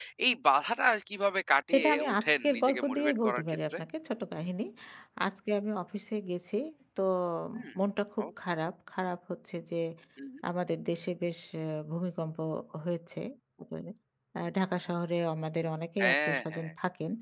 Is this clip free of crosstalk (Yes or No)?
No